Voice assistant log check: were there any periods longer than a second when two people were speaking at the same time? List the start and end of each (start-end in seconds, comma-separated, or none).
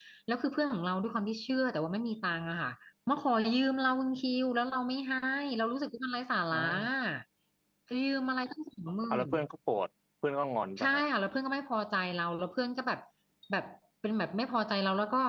none